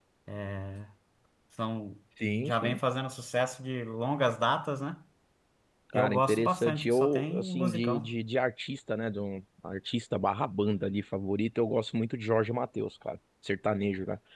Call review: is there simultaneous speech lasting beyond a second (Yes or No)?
Yes